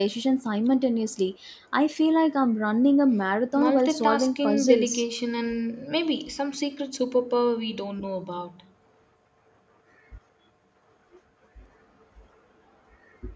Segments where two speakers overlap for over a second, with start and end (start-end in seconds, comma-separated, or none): 3.5-5.0